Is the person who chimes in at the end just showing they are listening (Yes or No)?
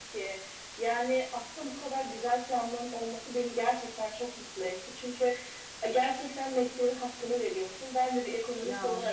Yes